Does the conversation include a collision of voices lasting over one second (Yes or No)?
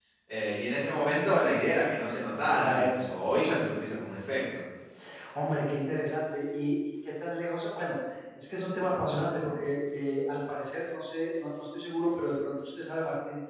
No